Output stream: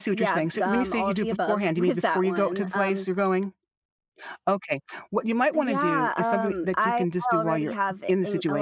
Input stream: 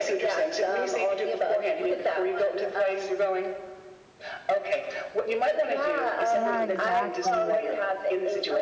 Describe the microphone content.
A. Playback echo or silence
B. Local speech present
B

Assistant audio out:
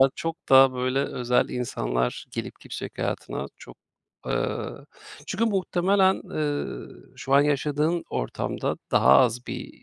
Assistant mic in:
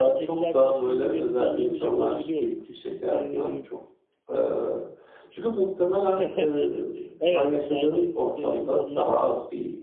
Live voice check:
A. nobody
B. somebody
B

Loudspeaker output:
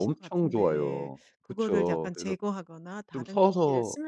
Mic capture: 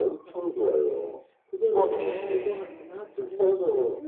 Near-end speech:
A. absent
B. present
B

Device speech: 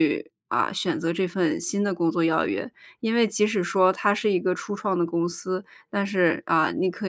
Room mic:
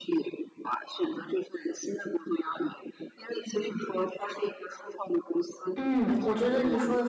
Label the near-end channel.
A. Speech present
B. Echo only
A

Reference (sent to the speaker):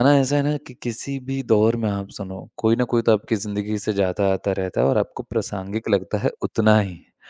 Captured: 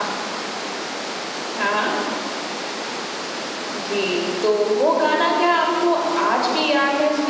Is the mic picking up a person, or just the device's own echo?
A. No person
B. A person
B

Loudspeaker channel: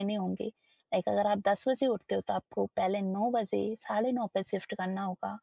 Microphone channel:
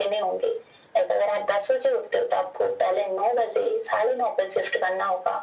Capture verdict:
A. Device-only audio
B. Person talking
A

